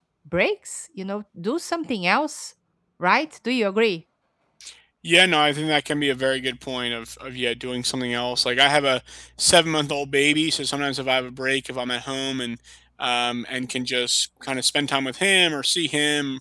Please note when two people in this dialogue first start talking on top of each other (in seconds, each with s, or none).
none